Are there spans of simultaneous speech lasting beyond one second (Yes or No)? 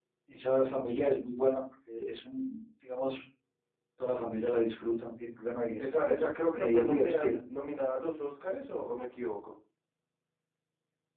Yes